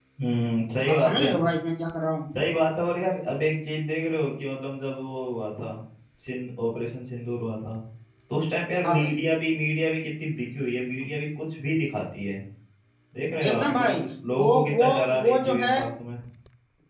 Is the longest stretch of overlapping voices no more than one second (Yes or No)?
No